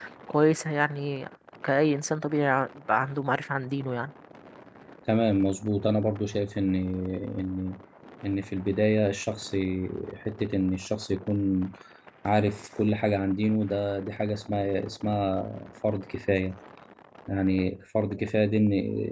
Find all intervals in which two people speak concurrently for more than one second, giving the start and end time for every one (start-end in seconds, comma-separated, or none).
none